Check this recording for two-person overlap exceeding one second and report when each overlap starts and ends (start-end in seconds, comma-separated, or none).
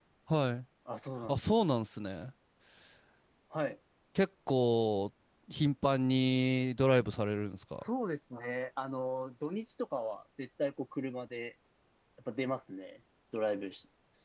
none